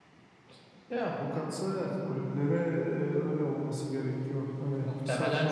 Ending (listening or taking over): taking over